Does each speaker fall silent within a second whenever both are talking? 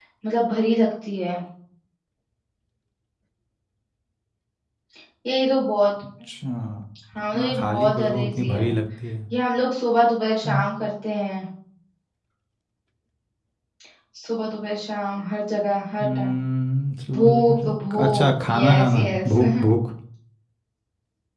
No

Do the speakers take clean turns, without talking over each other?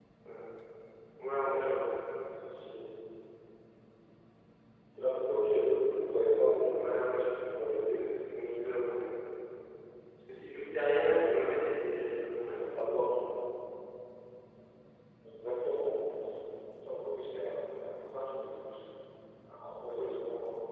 No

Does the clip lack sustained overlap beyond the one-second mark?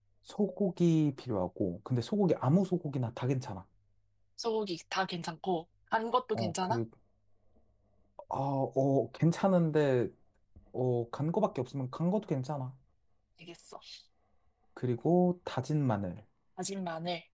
Yes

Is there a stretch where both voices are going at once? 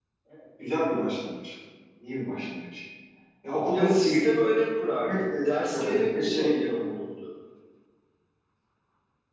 Yes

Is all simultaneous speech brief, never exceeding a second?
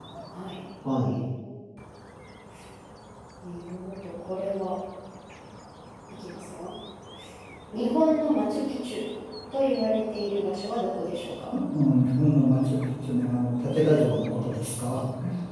Yes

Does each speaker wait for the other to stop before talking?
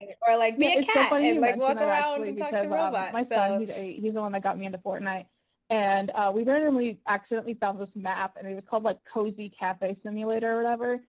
No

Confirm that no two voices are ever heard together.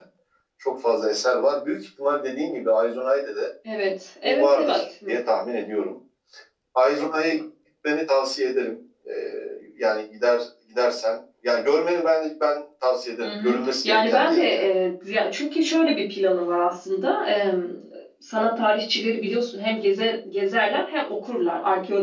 No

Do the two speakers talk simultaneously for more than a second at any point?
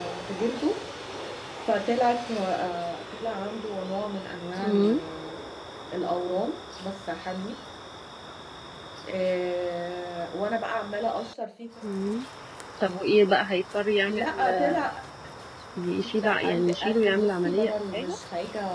Yes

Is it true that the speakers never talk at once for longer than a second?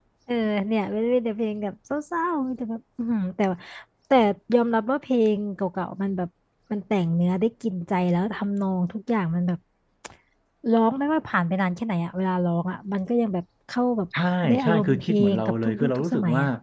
No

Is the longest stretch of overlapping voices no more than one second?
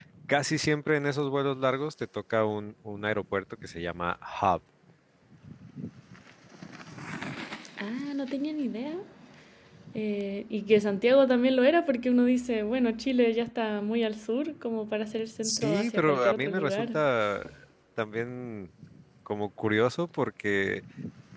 No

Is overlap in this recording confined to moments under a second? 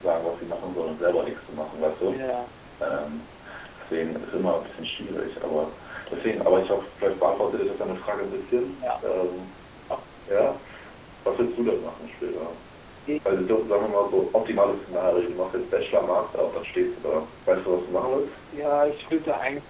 Yes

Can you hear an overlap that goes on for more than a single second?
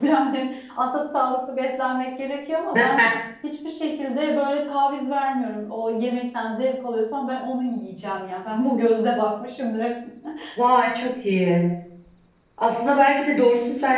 No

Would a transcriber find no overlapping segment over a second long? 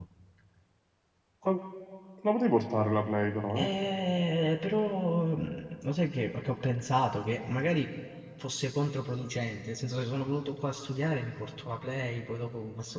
Yes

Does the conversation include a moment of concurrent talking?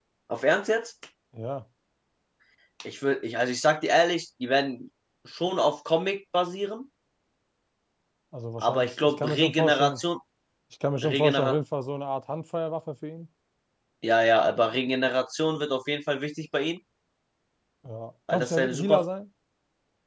Yes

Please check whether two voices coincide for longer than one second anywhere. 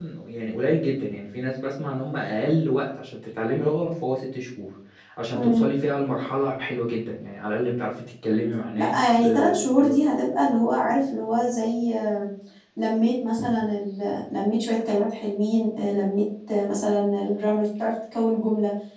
Yes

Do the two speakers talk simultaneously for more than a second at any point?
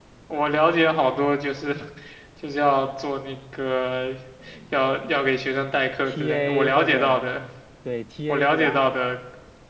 Yes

